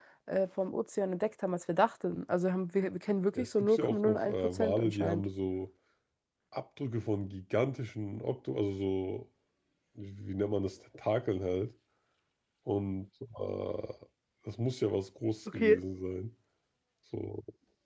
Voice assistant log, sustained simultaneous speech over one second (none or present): present